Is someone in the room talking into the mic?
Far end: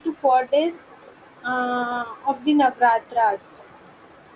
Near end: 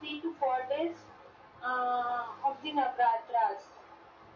No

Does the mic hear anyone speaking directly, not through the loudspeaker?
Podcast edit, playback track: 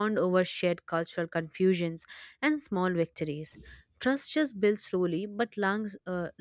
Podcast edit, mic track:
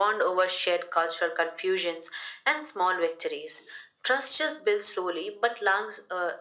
No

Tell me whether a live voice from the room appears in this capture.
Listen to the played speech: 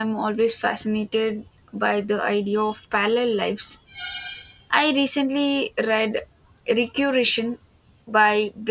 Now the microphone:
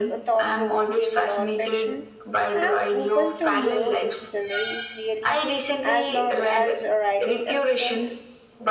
Yes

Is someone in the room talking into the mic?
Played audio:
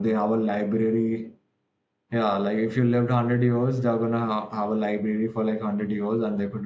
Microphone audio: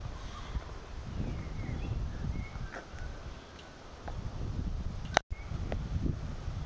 No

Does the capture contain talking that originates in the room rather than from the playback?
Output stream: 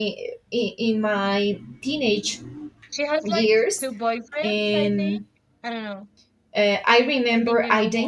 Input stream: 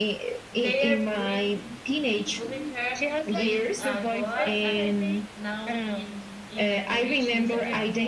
Yes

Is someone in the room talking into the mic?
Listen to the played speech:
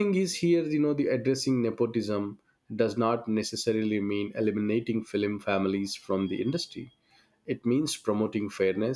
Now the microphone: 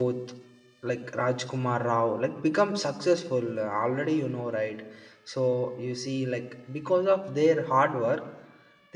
Yes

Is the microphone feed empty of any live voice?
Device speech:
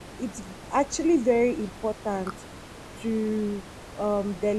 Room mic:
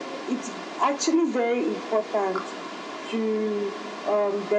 Yes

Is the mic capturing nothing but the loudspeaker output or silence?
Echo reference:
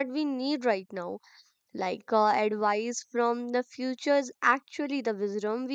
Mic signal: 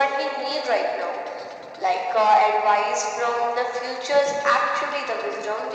Yes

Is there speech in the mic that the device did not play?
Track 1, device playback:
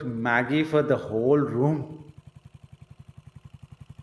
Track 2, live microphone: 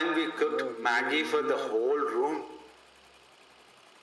Yes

